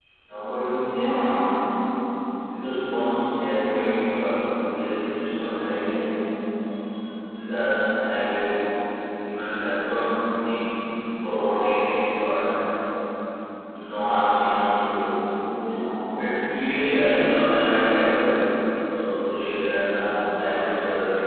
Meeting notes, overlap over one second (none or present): none